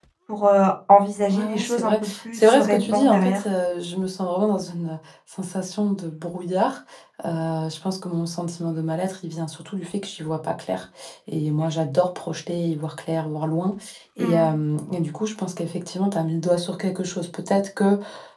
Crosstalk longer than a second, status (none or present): present